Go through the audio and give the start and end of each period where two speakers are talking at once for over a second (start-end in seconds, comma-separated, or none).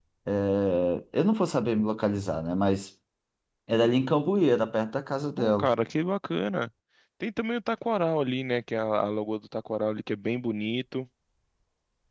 none